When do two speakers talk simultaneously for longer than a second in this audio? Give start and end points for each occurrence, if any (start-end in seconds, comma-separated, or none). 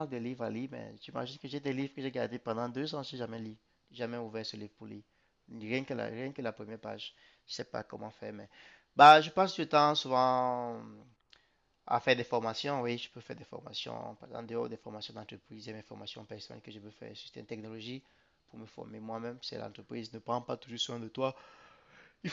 none